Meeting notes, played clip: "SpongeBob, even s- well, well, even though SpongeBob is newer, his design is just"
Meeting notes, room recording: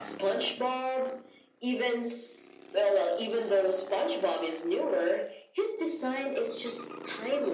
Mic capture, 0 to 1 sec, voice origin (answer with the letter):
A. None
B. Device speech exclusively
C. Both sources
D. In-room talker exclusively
B